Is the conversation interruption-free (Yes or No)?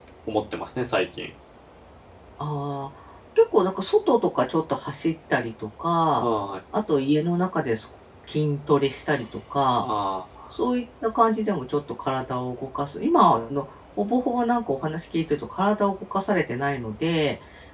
Yes